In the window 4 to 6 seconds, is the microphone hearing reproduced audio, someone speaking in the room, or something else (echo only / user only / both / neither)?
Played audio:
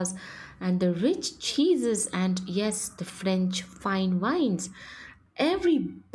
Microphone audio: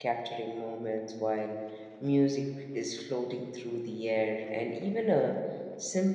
user only